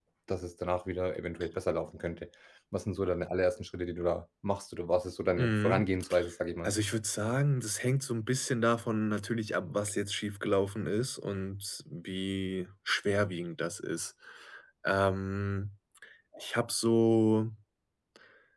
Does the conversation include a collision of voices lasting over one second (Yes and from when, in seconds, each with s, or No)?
No